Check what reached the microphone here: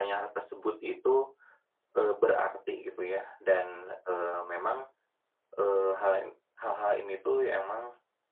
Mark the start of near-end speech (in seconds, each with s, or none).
none